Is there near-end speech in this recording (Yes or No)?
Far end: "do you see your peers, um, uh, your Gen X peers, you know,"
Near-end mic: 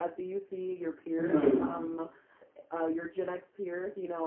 Yes